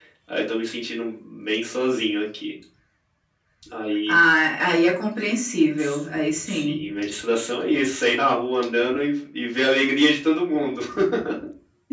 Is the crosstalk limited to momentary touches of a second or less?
Yes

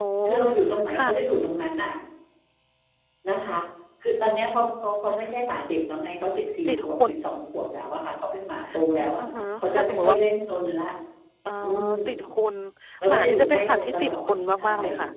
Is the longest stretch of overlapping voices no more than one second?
No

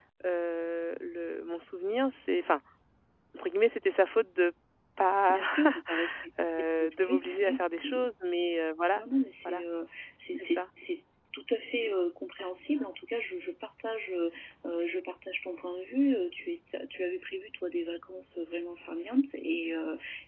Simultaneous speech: Yes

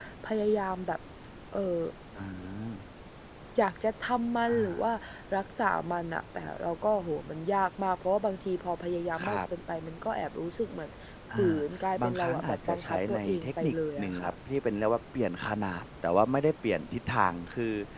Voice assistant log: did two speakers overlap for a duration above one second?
Yes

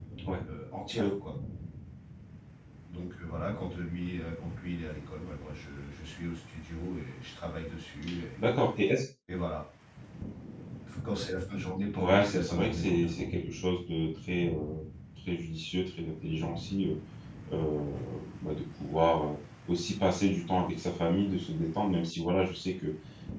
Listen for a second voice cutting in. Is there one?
Yes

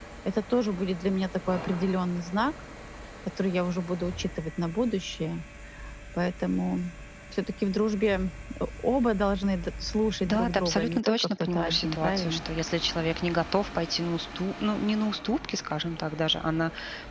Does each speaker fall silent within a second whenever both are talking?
No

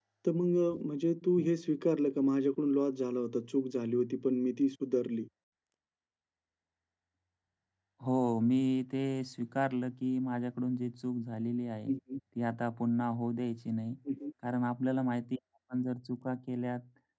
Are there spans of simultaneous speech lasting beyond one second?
No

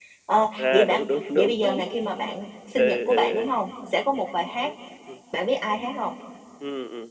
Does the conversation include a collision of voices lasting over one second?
Yes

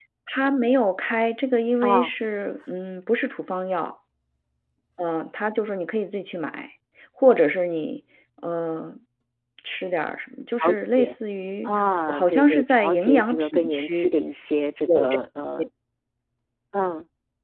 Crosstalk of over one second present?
Yes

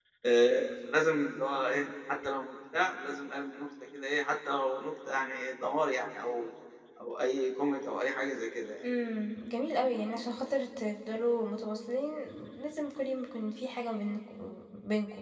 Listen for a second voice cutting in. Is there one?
No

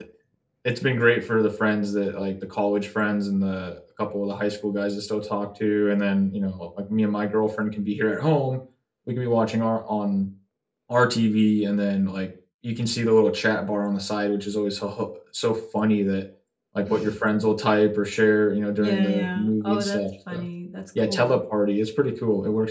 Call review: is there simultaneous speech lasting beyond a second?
Yes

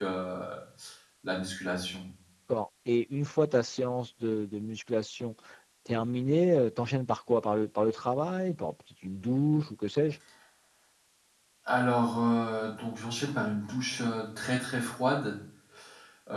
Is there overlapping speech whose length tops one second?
No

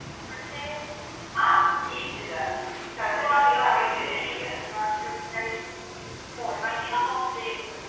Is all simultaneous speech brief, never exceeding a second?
No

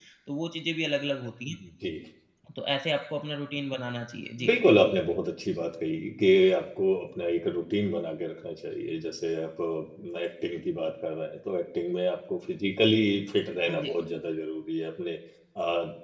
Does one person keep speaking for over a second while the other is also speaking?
No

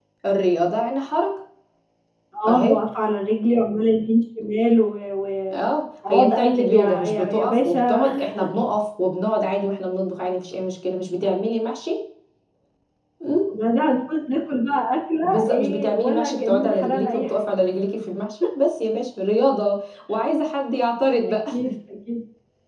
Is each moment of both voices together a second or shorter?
No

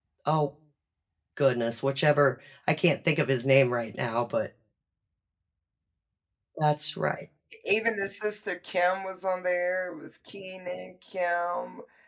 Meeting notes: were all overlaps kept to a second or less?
Yes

